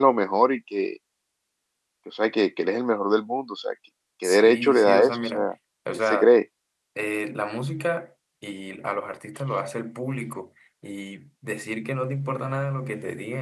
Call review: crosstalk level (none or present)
present